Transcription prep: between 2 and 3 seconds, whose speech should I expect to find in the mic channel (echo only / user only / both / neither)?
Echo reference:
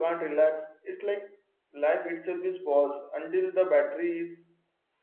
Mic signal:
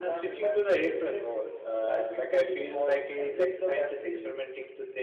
both